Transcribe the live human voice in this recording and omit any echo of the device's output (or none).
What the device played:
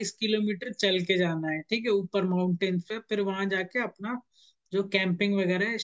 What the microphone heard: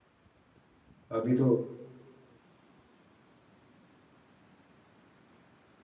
अभी तो